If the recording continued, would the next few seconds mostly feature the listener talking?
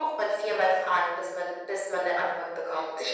No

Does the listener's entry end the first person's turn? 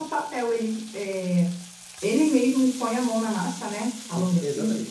Yes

